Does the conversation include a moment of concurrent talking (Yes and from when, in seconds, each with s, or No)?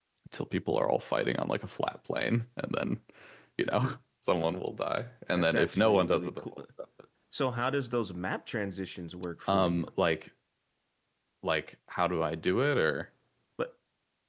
Yes, from 5.3 s